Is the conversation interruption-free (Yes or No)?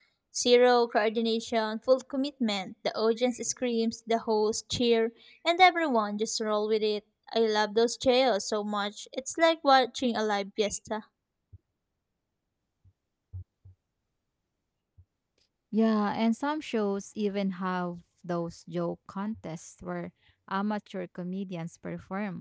Yes